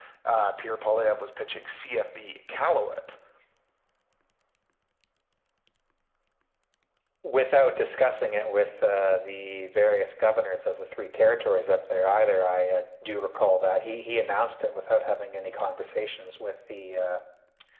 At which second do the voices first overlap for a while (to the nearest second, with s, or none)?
none